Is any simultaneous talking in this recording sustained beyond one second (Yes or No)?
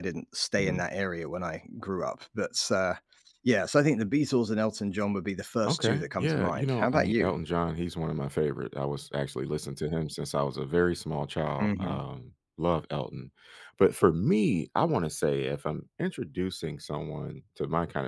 Yes